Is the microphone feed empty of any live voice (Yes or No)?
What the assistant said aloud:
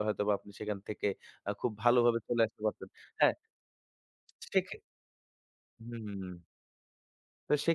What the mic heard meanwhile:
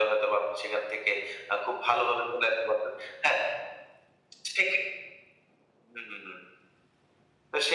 Yes